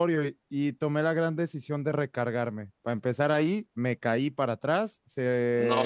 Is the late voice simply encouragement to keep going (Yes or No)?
Yes